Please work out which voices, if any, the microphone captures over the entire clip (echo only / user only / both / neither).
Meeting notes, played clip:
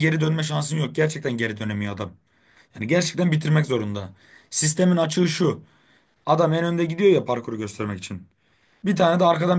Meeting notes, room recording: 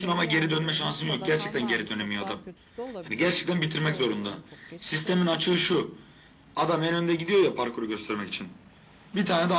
both